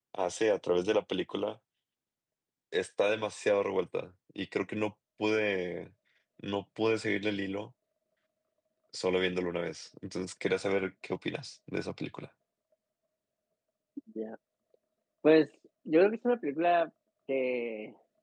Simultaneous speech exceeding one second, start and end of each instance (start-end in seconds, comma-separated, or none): none